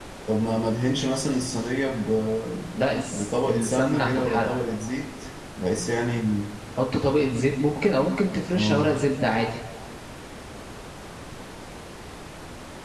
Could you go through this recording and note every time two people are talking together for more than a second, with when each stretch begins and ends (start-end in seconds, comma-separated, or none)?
3.1-4.5